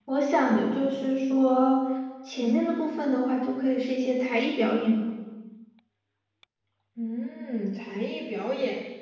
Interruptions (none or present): none